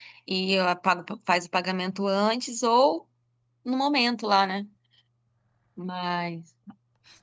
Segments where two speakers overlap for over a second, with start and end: none

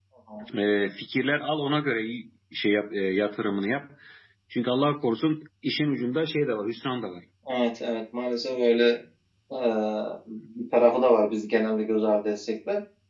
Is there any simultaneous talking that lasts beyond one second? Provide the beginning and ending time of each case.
none

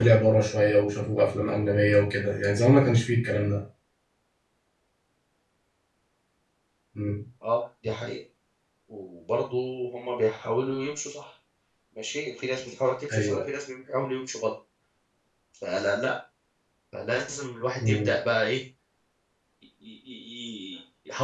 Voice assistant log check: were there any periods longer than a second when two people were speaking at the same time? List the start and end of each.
none

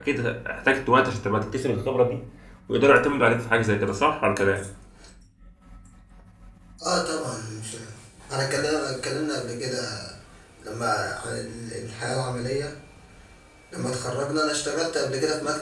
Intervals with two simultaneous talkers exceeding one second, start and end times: none

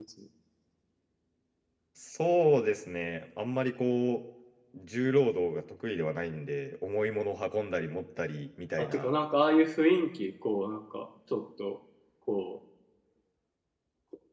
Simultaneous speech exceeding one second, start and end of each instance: none

